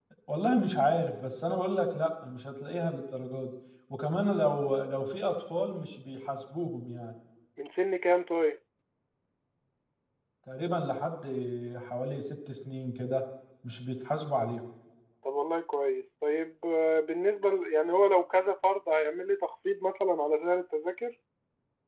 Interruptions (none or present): none